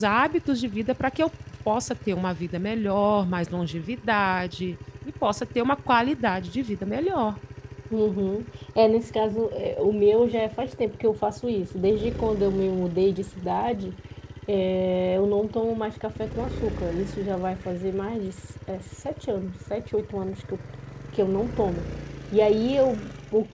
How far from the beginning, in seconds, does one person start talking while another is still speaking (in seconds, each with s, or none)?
none